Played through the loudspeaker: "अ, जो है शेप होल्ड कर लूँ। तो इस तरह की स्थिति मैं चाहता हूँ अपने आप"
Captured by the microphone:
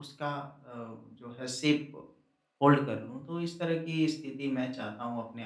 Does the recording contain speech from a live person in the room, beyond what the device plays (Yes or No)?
No